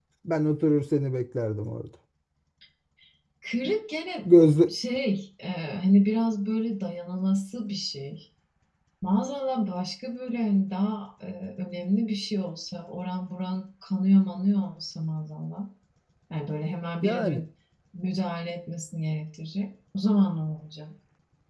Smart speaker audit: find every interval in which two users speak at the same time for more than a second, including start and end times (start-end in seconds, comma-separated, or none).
none